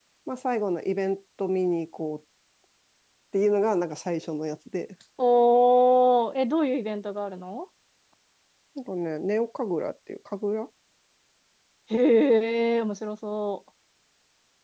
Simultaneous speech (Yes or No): No